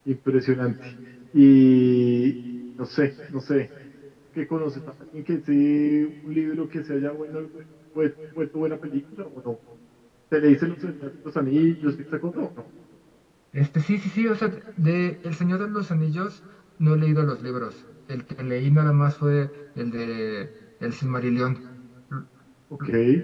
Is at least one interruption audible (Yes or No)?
No